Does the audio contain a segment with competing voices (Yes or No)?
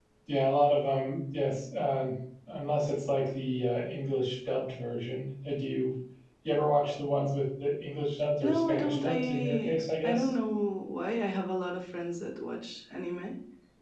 Yes